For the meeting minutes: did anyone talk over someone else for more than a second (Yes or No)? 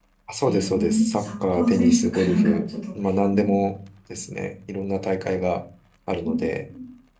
Yes